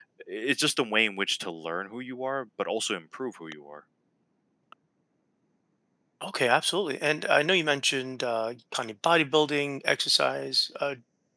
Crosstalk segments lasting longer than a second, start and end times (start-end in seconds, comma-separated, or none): none